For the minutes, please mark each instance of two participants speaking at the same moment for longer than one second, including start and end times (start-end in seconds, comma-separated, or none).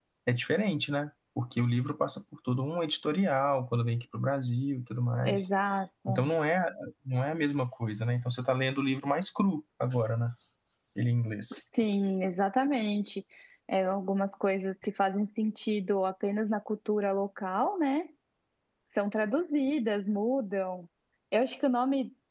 none